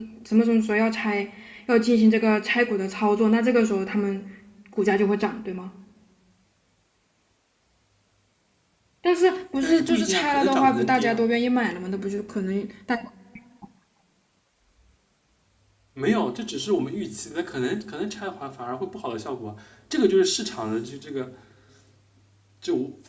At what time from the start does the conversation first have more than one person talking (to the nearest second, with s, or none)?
10 s